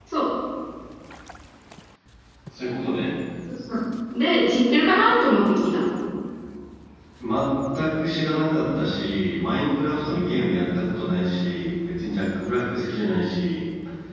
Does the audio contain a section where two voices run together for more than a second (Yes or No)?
No